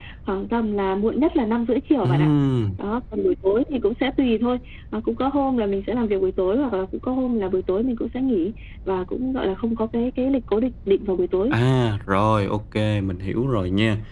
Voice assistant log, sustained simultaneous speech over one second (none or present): none